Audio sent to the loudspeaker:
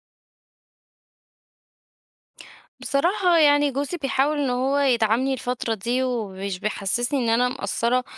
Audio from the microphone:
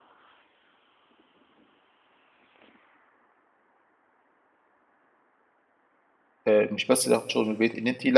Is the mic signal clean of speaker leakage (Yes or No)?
Yes